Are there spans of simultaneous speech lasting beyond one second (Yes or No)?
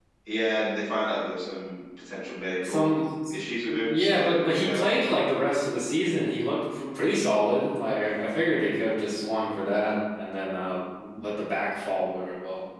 Yes